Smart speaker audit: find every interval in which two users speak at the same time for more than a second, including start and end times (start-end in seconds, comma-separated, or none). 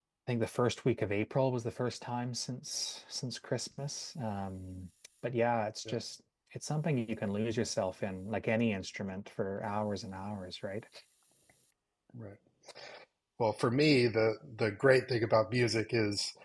none